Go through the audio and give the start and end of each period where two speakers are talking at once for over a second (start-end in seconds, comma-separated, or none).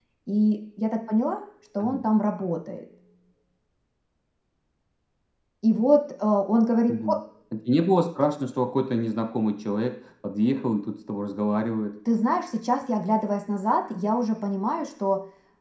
none